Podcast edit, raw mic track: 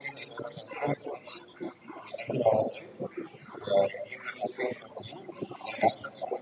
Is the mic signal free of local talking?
Yes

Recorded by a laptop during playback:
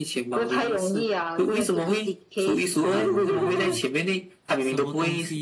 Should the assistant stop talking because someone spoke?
Yes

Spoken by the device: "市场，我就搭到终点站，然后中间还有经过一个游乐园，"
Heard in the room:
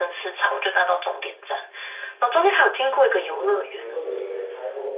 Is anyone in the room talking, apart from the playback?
Yes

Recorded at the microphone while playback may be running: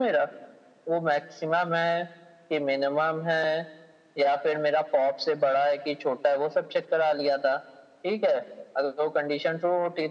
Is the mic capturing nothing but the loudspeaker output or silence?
Yes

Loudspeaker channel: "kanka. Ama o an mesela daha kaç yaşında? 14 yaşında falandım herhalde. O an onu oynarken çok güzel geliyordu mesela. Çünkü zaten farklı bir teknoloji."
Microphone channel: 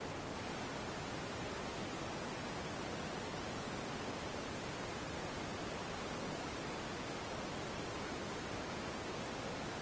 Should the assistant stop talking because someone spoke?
No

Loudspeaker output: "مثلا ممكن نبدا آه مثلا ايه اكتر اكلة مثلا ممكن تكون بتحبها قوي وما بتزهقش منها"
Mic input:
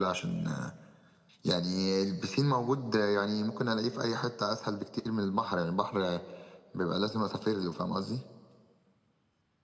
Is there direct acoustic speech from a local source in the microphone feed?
Yes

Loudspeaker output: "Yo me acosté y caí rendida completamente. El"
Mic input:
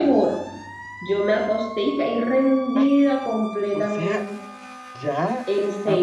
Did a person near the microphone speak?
Yes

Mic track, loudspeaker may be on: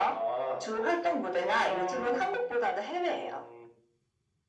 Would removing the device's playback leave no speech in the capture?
Yes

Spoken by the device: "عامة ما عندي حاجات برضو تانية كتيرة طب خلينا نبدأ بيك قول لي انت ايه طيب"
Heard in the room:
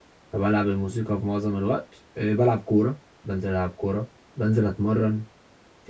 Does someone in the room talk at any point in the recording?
Yes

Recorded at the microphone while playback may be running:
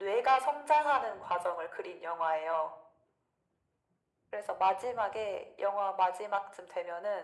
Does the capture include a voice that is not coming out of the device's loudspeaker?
No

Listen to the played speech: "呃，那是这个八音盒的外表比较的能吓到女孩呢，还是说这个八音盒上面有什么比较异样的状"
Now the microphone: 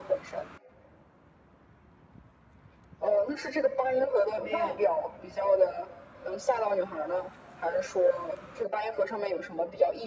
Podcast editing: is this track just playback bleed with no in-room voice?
No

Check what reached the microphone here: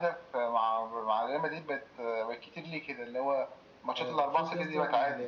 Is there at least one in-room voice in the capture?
Yes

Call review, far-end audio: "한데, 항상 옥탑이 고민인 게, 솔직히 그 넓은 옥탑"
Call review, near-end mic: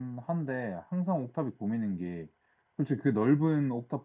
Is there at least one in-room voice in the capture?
No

